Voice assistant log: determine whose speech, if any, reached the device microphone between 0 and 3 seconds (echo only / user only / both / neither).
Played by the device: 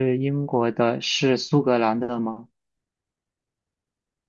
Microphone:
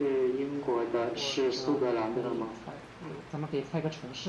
both